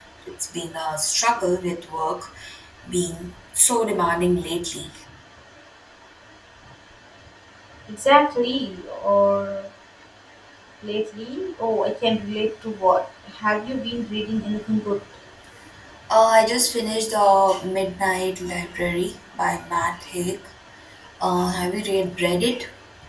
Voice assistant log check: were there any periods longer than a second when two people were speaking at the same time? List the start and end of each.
none

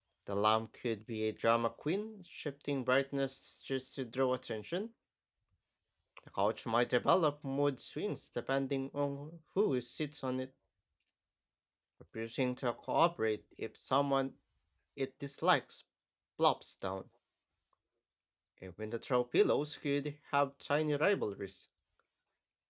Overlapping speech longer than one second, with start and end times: none

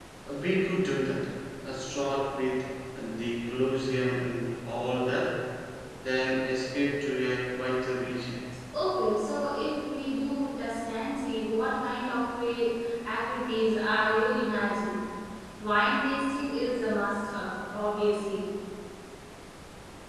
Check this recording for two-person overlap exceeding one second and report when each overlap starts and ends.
none

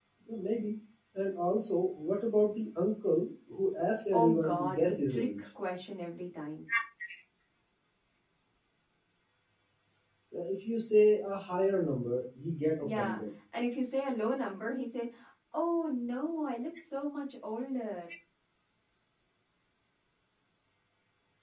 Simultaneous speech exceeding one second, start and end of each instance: 4.1-5.5

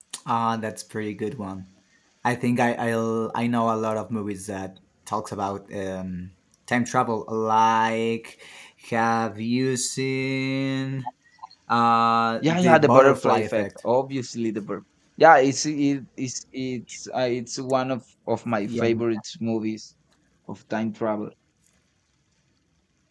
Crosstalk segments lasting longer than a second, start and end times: 12.4-13.7

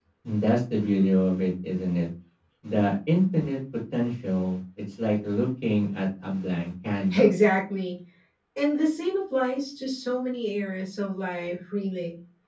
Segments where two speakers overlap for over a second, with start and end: none

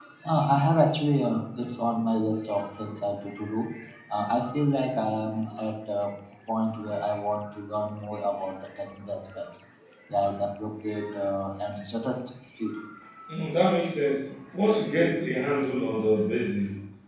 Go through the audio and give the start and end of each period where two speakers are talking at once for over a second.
none

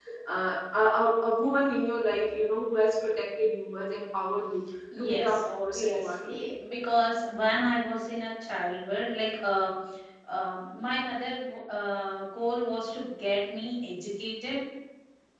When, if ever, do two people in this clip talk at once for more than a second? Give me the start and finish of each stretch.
5.0-6.5

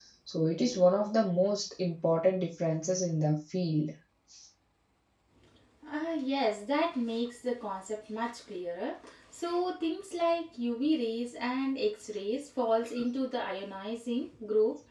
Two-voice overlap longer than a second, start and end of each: none

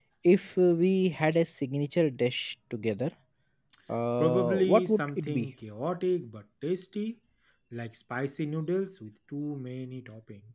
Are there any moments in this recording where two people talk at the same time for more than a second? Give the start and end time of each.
4.2-5.5

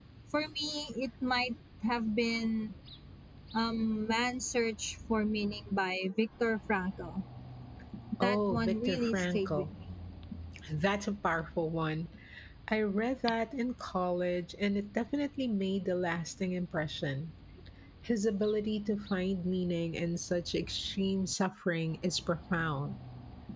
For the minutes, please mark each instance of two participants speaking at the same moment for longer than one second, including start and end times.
8.2-9.6

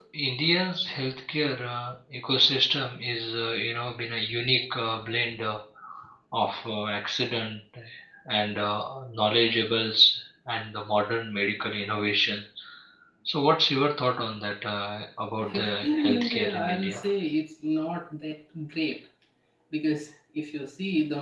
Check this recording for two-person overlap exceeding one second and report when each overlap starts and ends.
15.4-17.0

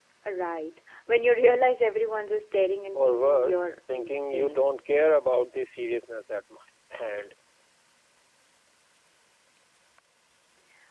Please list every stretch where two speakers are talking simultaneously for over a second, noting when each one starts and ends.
2.9-4.6

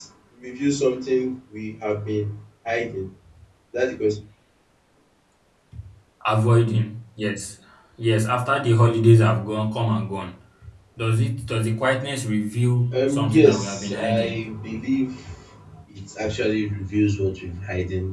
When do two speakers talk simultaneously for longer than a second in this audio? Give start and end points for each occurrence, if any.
13.0-14.4

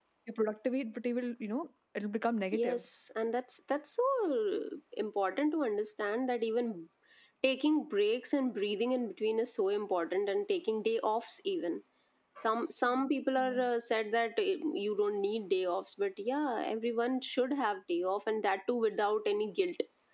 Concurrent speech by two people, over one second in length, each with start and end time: none

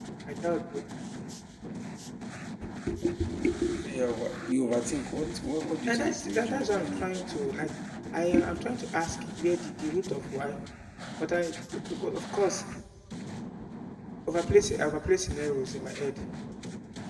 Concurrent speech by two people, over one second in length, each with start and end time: 5.9-7.6

